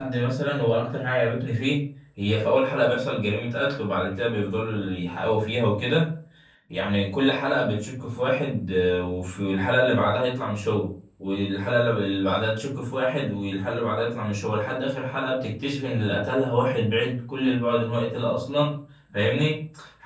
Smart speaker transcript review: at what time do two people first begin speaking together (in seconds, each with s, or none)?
none